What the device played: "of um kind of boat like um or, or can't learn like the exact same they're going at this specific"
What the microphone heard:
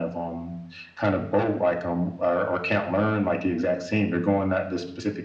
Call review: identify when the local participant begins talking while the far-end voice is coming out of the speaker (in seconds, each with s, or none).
none